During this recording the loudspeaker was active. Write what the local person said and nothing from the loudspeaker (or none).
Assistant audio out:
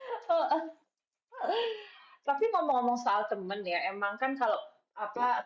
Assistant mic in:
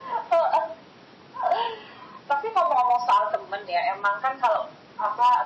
none